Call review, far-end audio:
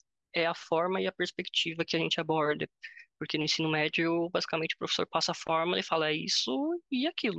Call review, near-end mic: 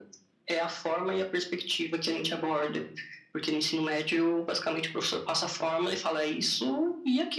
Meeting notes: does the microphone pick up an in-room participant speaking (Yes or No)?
No